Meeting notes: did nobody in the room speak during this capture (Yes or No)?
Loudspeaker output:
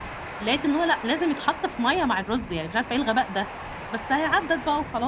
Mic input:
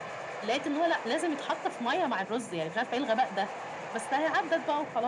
Yes